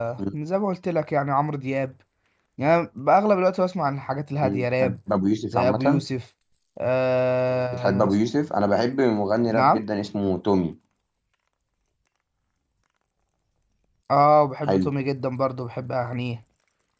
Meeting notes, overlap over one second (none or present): none